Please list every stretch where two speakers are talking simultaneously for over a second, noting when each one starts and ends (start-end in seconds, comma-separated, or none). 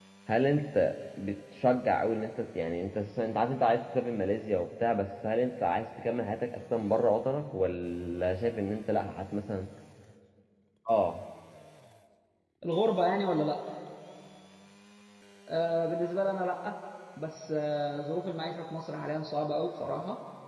none